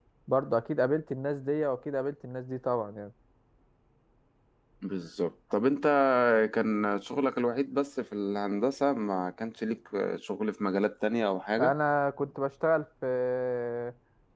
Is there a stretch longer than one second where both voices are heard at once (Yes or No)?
No